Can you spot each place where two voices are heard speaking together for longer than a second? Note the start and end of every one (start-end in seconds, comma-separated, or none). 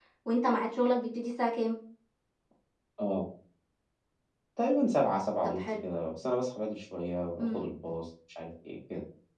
none